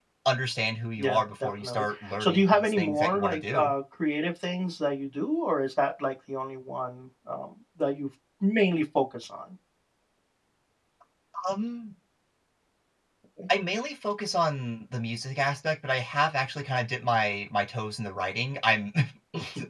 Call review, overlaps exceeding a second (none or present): present